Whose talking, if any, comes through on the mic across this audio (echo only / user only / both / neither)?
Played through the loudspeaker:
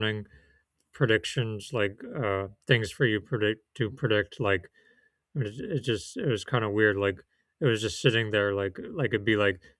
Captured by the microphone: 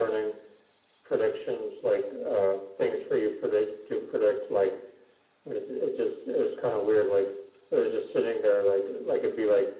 echo only